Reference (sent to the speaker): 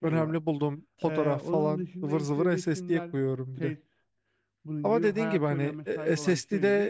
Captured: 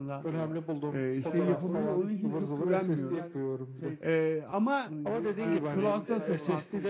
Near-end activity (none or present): present